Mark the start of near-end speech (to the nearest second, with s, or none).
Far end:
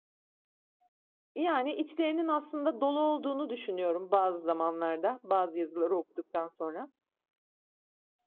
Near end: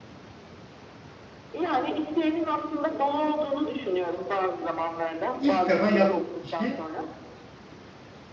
5 s